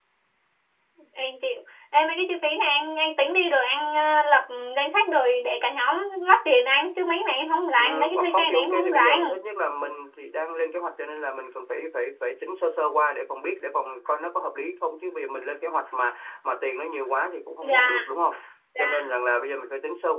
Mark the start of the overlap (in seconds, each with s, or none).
7.8 s